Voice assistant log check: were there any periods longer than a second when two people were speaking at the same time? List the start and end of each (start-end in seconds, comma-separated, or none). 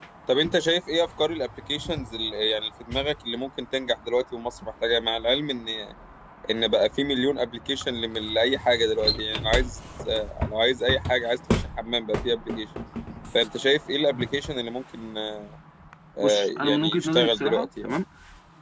16.2-17.9